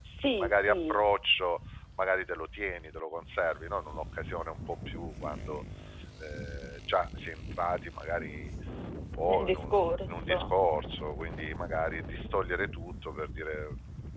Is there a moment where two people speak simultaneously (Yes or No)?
Yes